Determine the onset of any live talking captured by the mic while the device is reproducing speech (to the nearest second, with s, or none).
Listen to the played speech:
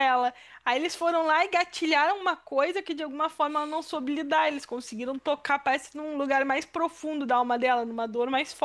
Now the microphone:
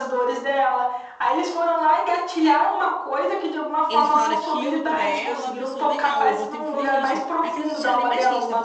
4 s